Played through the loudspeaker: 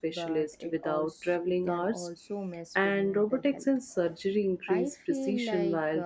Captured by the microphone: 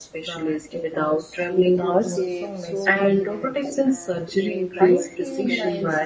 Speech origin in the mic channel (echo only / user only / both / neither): both